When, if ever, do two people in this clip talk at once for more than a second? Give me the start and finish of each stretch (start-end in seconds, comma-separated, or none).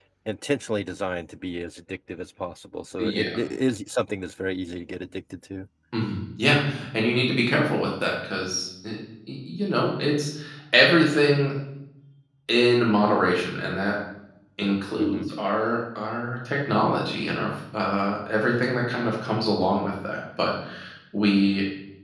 none